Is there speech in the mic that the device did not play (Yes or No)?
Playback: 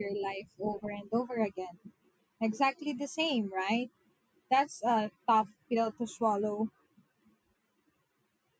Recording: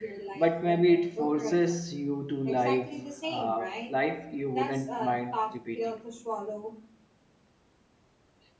Yes